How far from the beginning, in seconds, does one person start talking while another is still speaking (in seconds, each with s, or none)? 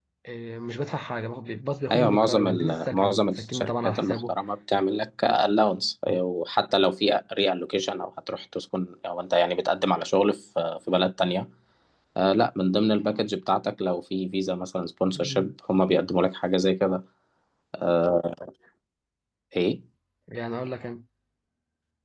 1.9 s